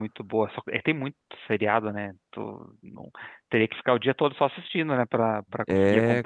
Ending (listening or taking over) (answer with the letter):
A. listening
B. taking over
B